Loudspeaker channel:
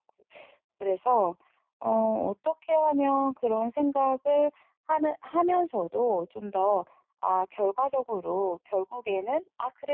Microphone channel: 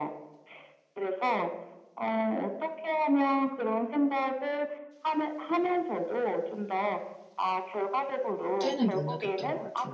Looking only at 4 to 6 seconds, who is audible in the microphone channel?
echo only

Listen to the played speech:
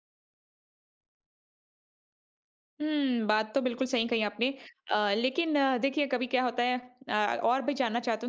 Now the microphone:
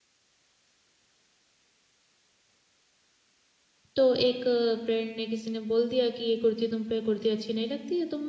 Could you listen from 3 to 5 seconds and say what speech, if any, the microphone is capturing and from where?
user only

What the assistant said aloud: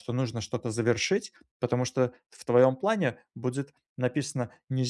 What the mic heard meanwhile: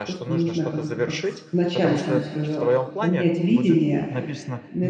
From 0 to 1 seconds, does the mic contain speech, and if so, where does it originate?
both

